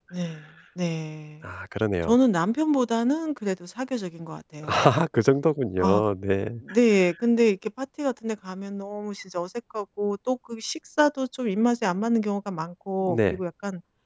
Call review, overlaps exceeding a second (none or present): none